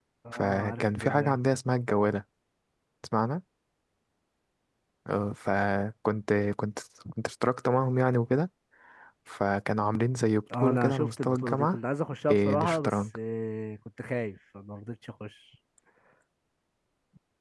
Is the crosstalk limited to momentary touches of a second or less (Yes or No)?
No